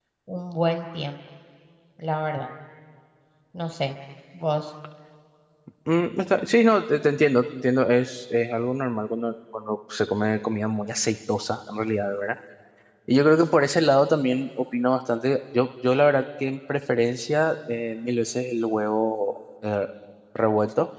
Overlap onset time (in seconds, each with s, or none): none